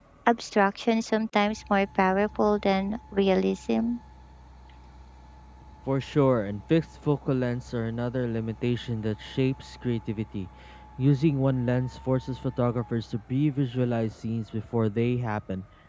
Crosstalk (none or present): none